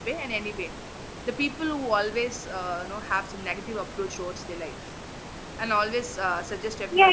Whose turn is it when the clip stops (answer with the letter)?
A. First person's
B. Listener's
B